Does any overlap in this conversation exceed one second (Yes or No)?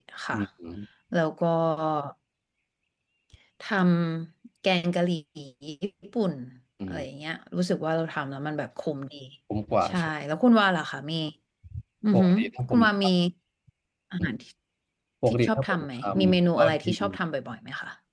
Yes